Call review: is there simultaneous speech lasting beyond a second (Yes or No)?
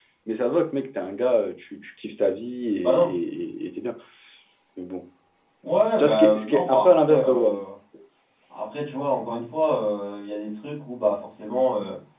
Yes